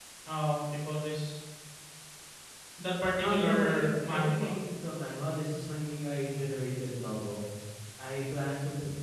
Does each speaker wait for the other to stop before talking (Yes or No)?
No